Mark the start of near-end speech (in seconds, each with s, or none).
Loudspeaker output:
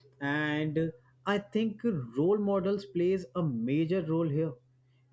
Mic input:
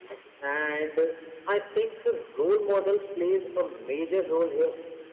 none